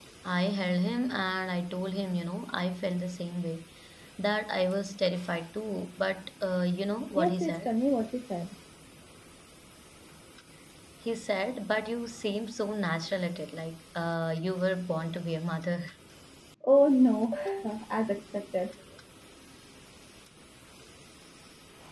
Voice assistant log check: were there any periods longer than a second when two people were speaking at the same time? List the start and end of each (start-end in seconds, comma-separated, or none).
none